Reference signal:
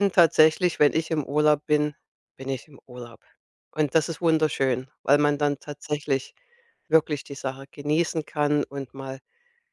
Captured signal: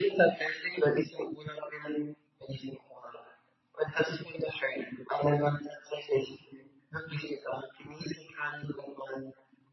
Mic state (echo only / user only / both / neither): echo only